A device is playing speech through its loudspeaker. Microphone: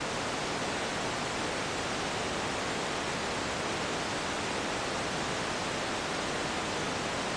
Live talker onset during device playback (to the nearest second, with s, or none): none